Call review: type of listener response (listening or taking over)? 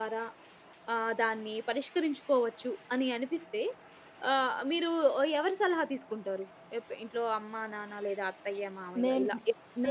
taking over